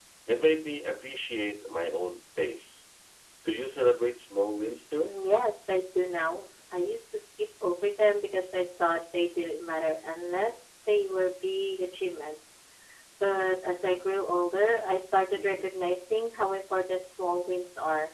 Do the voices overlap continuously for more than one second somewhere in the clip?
No

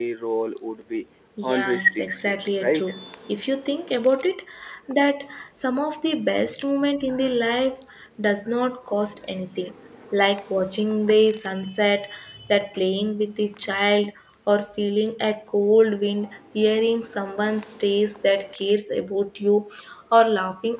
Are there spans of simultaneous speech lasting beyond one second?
Yes, from 1.5 s

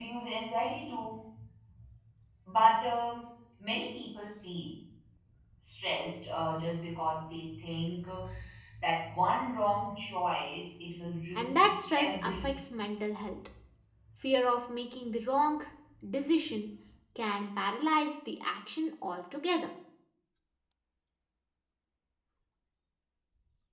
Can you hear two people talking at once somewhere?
Yes, from 11.3 s

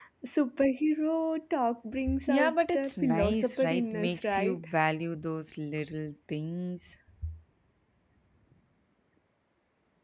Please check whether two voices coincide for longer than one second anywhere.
Yes, from 2.1 s

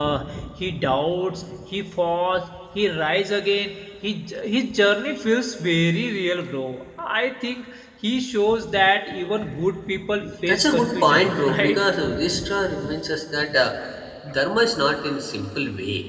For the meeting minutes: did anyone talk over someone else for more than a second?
Yes, from 10.2 s

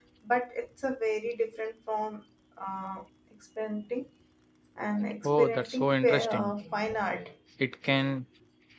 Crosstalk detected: Yes, from 5.2 s

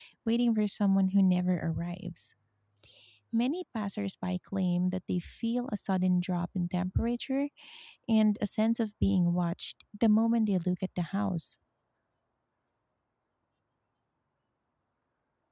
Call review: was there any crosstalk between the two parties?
No

